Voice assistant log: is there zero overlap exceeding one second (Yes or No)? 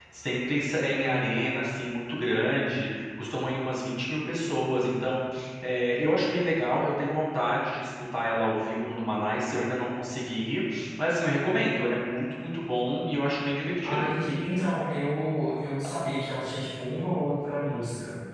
Yes